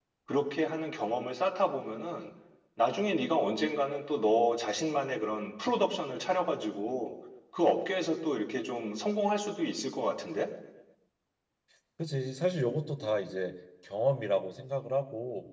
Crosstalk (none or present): none